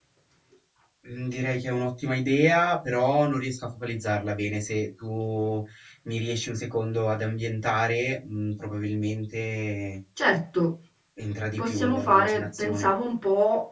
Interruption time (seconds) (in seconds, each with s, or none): 11.6 s